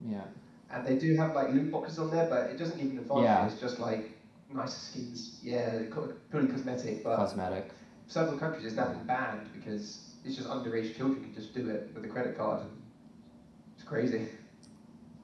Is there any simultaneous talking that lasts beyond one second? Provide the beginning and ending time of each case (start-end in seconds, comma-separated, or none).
none